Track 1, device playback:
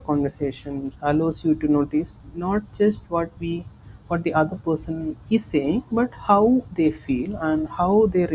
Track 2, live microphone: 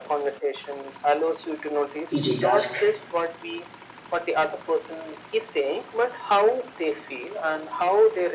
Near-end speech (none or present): present